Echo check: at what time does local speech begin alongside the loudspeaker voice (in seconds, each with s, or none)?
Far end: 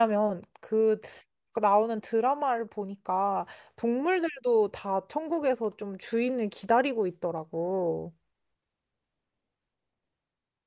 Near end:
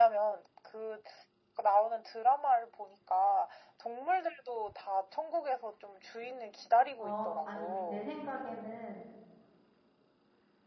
7.0 s